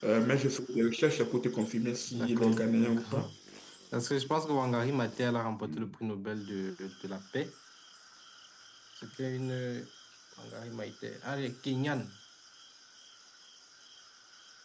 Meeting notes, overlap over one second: present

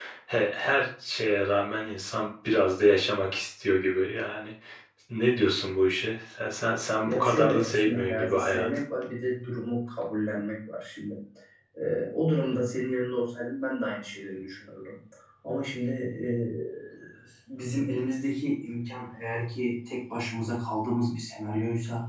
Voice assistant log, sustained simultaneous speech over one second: present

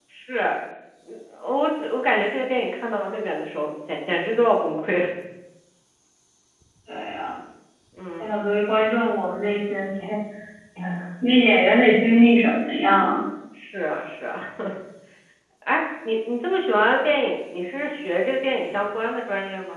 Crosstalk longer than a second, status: none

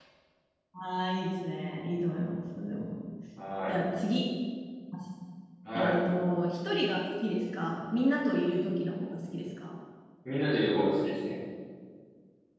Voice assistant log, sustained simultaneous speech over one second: none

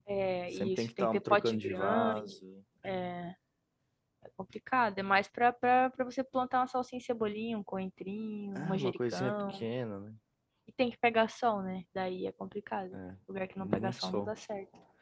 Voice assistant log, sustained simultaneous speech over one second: present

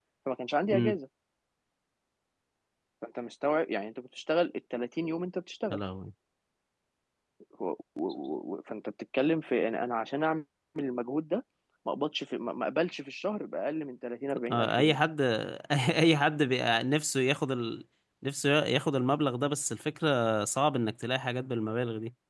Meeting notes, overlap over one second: none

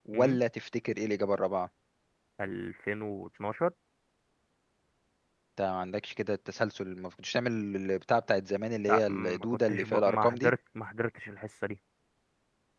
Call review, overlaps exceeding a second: present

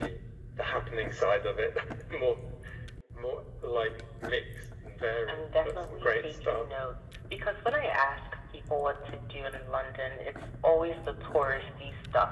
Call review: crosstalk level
present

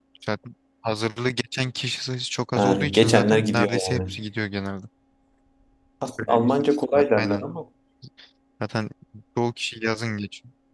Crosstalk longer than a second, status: present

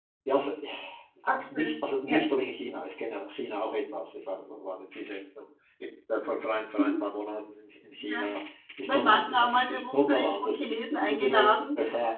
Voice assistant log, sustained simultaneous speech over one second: present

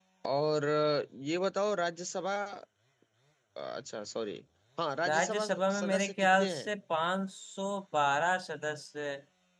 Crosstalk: present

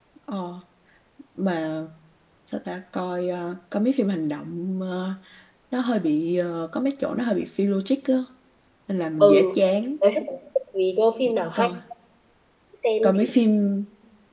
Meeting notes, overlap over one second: none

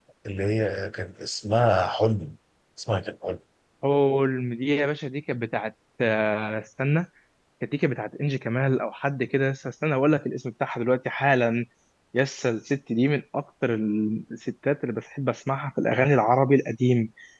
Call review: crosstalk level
none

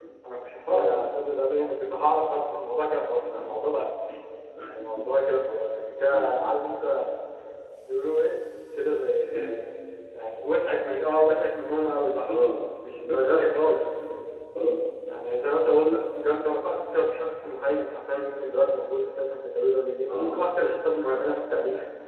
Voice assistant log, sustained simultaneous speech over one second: none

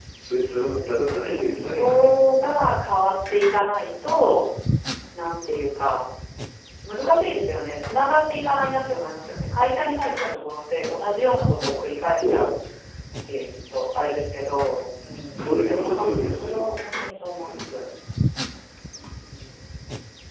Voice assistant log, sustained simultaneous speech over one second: present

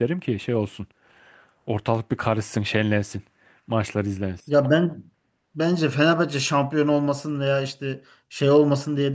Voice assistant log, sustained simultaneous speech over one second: none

